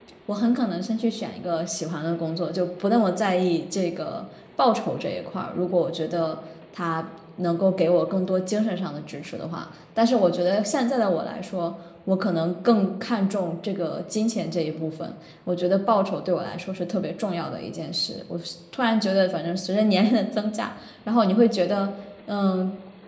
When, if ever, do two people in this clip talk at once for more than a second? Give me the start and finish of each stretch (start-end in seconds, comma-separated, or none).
none